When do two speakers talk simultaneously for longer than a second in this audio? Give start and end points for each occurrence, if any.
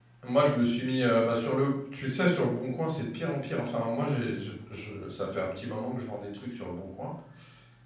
none

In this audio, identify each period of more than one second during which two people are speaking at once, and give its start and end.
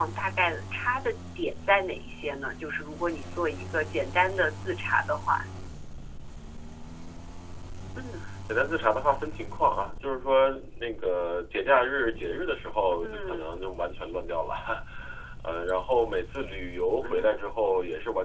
none

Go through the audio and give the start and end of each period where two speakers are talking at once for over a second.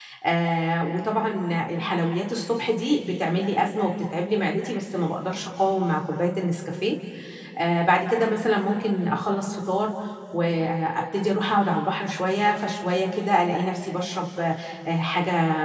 none

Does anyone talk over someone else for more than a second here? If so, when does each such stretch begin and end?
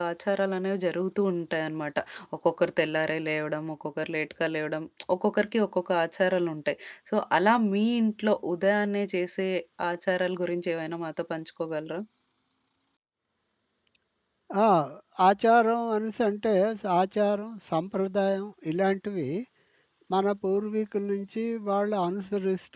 none

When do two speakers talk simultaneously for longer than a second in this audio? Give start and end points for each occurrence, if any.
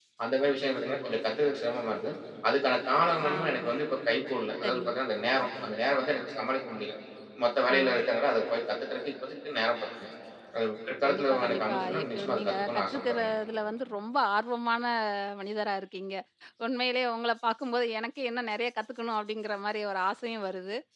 11.1-13.3

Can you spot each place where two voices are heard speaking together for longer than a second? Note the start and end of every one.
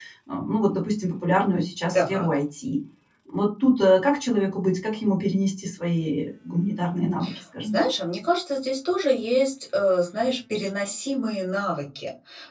none

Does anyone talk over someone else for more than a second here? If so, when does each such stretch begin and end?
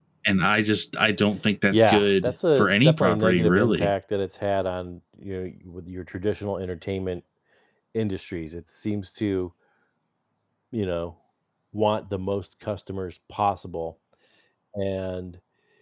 1.7-3.9

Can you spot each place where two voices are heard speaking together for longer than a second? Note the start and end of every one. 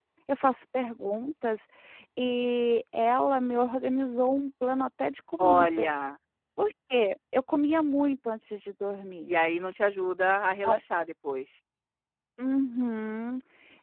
none

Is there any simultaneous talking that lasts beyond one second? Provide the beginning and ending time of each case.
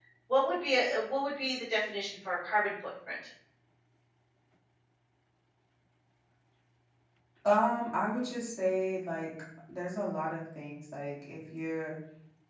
none

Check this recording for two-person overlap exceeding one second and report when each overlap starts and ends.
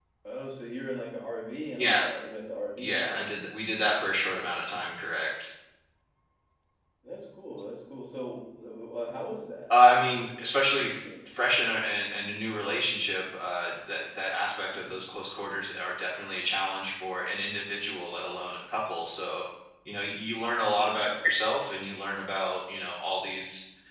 none

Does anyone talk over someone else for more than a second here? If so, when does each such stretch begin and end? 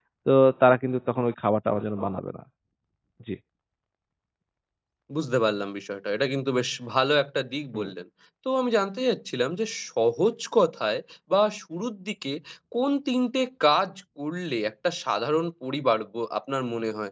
none

